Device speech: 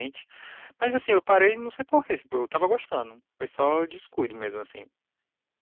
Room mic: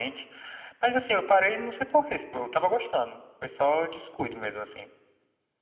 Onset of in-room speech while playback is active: none

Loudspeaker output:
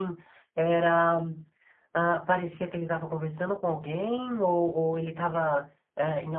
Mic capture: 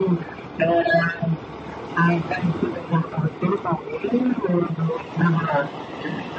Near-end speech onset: none

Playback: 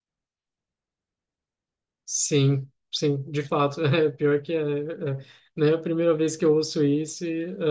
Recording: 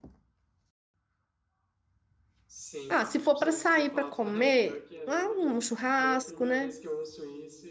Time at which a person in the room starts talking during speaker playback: 2.9 s

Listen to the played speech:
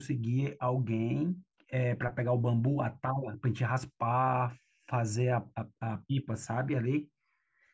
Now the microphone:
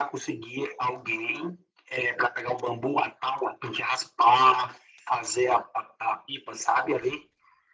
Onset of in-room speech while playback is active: none

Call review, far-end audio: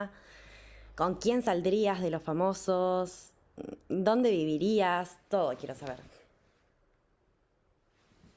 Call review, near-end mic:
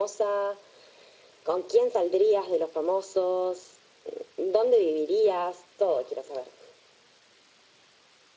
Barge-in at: none

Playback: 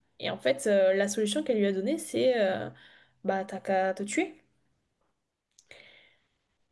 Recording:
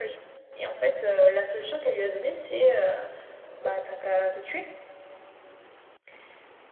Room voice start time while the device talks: none

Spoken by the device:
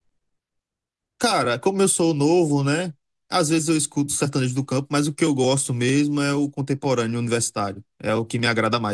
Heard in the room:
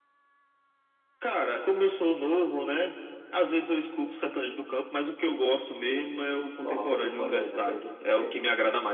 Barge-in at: 6.6 s

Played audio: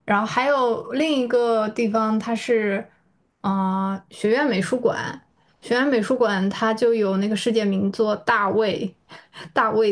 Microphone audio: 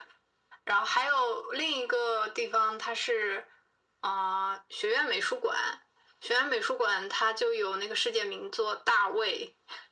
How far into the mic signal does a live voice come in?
none

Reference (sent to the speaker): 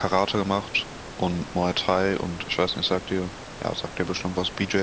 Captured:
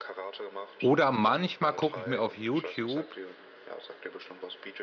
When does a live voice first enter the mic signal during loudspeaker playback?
0.8 s

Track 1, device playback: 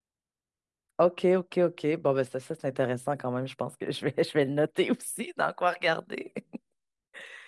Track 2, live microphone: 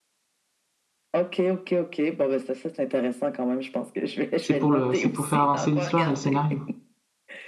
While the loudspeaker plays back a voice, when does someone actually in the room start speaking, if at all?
4.4 s

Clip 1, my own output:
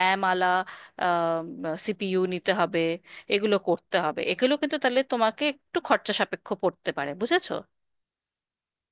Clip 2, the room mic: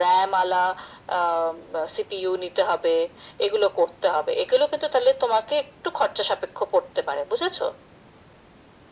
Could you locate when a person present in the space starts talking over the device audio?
none

